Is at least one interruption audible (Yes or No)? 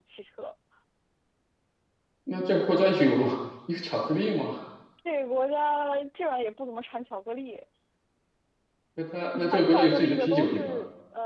Yes